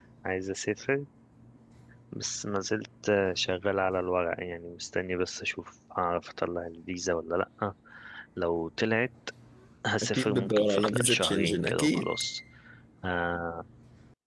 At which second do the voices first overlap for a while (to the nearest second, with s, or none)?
10 s